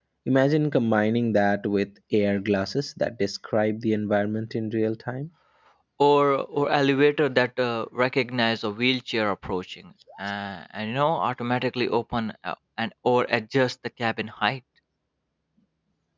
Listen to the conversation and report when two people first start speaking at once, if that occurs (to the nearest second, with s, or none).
none